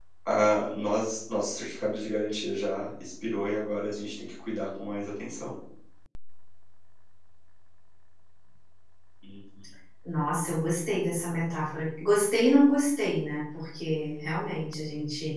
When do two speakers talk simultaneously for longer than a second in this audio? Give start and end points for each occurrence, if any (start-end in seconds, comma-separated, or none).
none